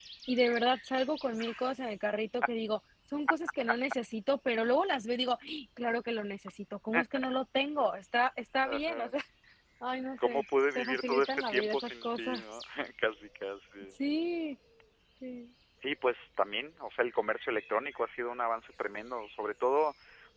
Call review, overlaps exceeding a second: present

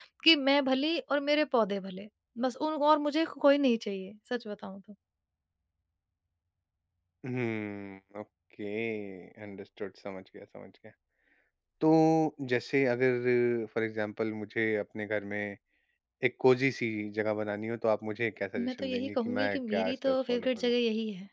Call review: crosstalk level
present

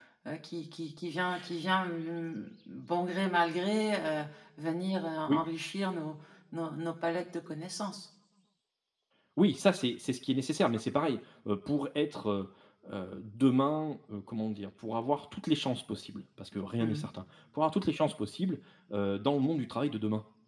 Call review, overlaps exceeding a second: none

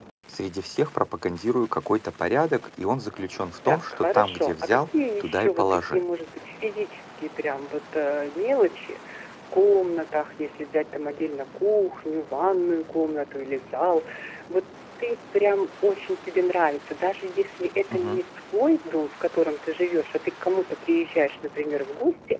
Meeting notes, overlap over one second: present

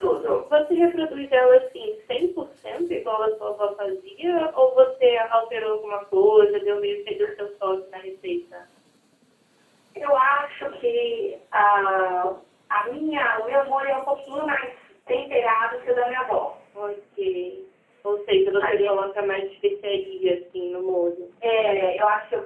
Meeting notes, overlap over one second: none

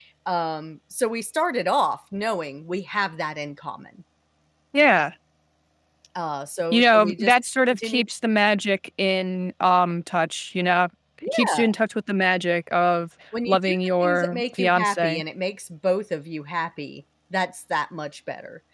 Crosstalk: present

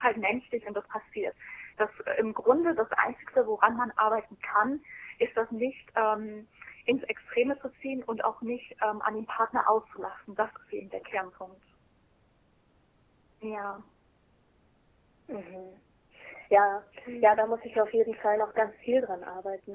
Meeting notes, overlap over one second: none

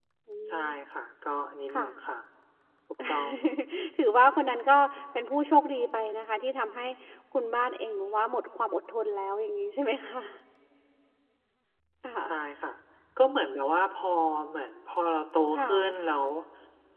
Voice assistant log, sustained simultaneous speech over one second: none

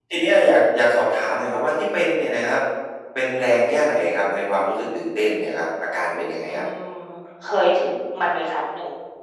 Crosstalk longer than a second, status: none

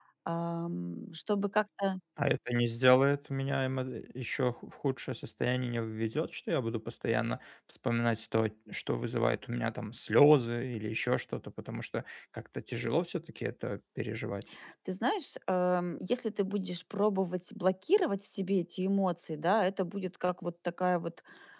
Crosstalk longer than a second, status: none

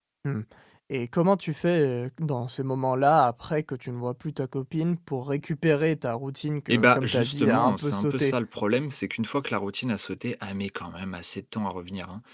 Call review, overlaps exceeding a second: present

